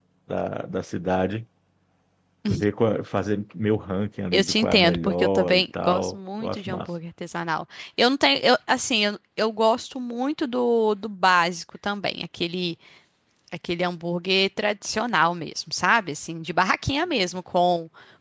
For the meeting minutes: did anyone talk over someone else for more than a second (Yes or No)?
Yes